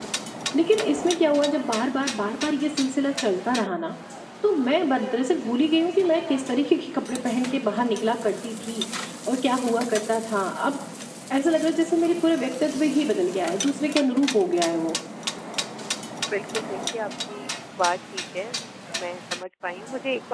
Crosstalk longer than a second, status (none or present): none